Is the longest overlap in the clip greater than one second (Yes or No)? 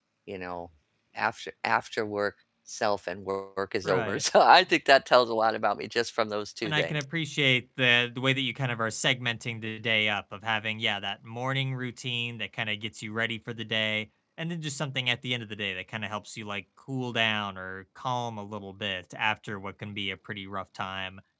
No